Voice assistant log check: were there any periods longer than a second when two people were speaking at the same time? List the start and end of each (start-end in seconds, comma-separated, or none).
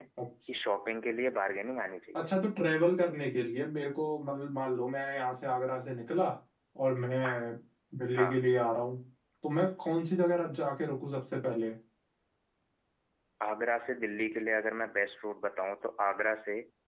none